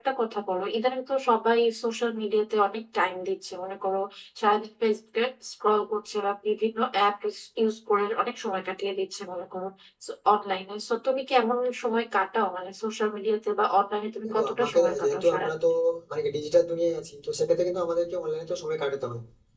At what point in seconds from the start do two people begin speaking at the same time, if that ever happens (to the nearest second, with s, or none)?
14 s